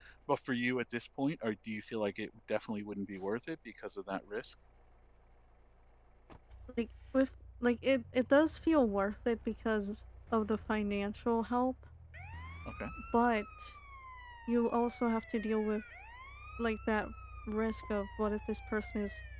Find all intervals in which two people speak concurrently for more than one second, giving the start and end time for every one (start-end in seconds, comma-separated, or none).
none